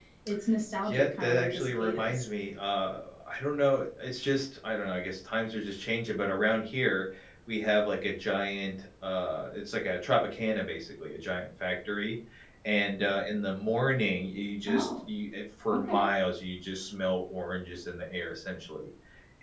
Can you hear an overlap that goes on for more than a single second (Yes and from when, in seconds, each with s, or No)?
Yes, from 0.9 s